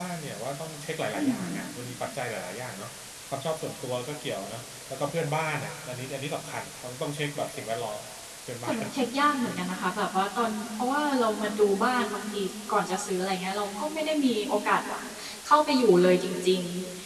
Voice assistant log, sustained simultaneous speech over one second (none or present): none